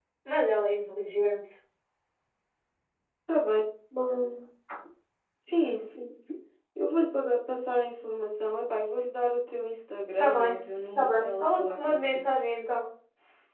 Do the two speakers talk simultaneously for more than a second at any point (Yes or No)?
Yes